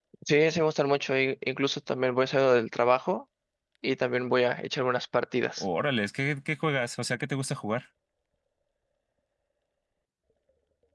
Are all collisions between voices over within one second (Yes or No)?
Yes